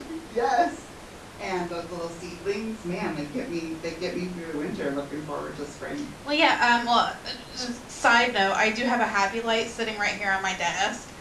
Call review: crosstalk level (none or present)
none